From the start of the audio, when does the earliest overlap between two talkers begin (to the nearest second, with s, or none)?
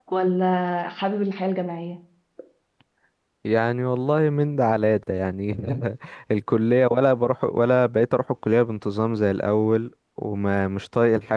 none